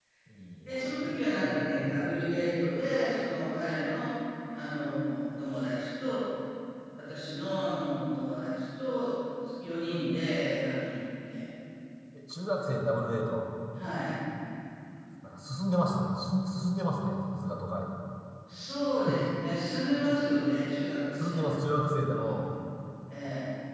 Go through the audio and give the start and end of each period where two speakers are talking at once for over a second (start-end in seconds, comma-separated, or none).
0.7-2.0